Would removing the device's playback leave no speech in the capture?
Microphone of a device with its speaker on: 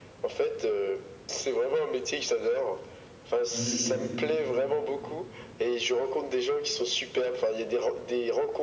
No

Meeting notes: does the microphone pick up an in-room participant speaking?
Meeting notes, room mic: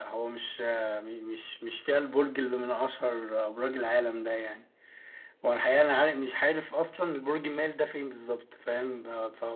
No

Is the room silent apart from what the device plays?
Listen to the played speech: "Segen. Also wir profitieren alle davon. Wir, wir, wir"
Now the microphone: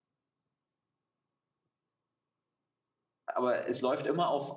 No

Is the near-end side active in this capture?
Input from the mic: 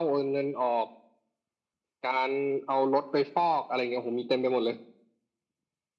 No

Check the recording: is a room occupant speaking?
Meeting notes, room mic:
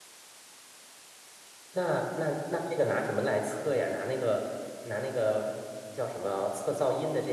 Yes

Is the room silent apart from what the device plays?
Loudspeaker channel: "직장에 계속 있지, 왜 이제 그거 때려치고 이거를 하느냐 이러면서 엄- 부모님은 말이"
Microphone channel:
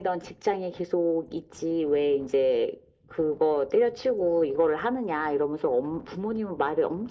Yes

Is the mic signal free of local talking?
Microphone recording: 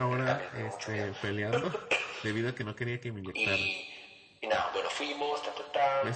No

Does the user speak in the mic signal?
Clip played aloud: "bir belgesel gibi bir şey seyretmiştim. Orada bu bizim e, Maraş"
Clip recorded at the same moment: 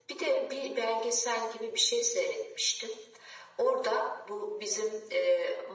No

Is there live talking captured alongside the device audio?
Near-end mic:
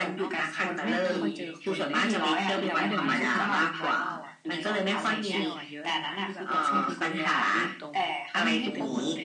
Yes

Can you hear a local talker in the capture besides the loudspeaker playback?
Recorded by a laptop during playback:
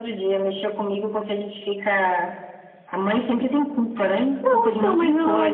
Yes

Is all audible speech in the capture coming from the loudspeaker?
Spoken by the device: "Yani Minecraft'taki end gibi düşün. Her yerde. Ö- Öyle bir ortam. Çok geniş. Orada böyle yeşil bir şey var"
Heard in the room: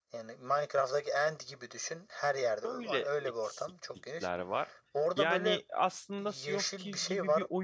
No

